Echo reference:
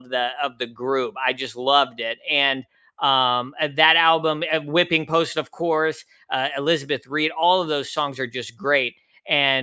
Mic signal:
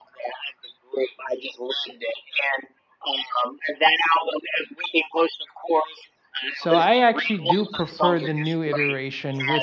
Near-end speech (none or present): present